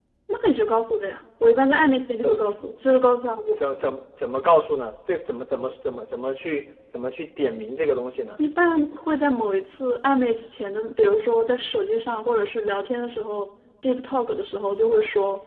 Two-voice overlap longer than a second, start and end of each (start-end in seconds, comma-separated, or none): none